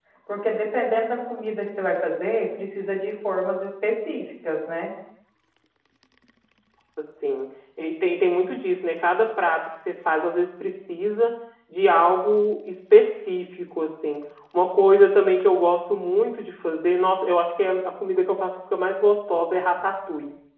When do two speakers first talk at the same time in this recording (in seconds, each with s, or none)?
none